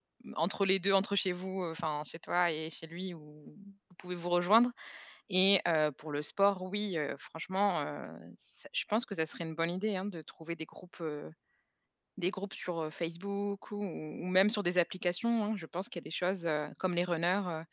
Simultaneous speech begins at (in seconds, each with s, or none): none